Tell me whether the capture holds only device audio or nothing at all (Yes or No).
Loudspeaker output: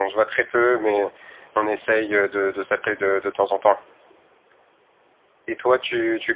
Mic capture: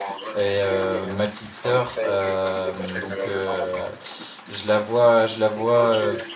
No